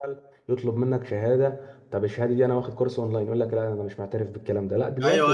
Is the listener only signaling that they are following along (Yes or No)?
No